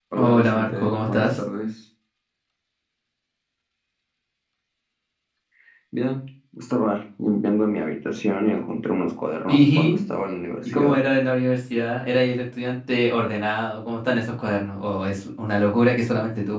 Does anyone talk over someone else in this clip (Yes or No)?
Yes